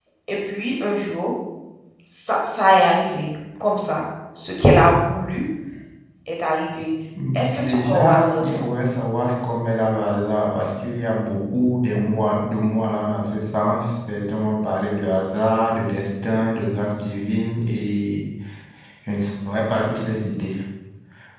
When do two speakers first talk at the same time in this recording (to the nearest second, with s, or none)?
7 s